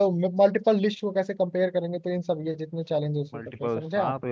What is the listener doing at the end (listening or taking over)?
taking over